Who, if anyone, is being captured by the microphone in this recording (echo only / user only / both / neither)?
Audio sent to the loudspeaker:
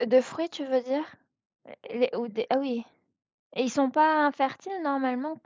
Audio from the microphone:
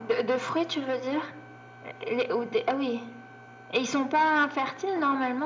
echo only